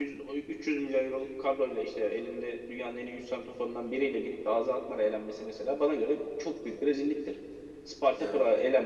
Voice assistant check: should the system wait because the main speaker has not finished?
Yes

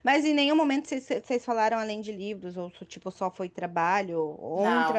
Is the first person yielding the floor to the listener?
Yes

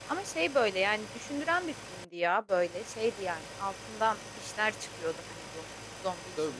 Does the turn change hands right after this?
Yes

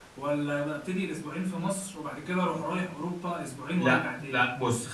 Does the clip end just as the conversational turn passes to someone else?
Yes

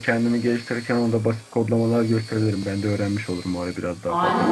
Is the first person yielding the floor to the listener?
Yes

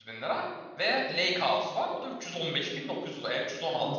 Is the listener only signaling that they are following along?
No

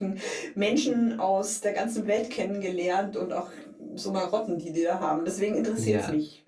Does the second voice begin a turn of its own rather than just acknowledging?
Yes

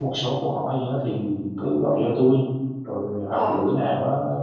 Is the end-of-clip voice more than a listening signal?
No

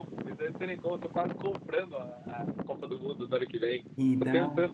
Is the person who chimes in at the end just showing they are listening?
Yes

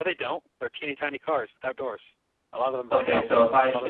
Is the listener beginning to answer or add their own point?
Yes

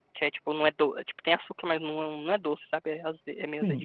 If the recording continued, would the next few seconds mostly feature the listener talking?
Yes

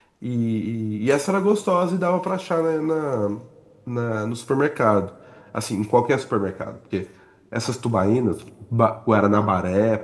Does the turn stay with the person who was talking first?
Yes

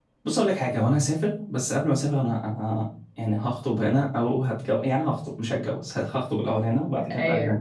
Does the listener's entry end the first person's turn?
No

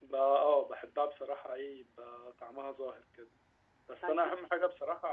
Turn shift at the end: No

